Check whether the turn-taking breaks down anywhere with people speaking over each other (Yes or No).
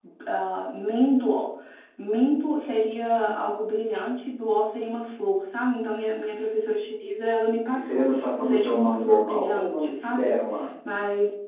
Yes